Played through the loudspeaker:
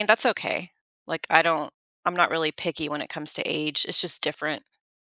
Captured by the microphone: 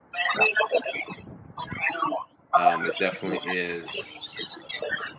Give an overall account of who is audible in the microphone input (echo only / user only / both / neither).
both